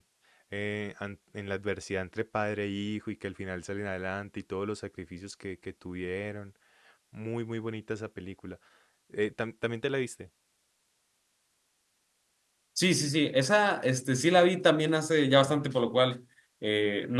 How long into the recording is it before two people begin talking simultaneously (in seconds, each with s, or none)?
none